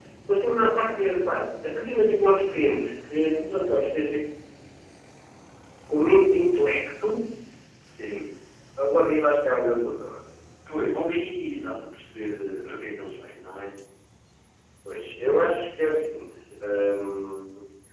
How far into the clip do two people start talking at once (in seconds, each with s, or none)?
none